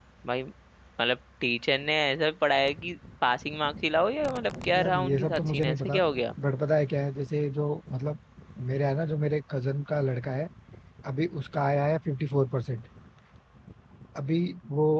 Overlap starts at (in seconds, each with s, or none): 4.7 s